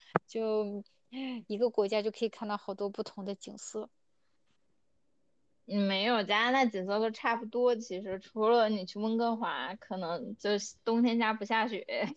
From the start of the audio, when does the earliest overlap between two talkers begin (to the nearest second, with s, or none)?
none